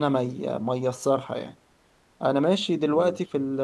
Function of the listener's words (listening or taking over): listening